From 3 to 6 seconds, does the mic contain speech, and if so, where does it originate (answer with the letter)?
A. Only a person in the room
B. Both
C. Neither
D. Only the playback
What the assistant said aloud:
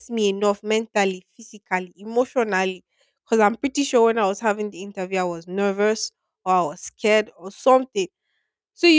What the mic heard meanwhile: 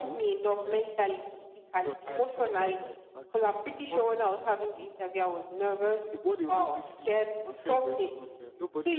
B